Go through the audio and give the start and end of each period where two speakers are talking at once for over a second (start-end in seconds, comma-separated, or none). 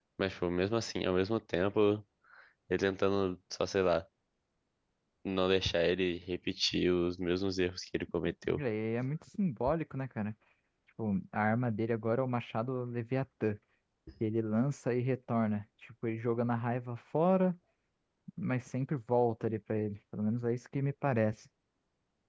none